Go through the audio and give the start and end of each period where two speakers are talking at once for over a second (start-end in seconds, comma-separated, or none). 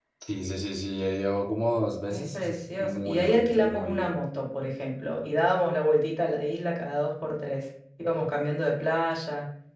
2.1-4.1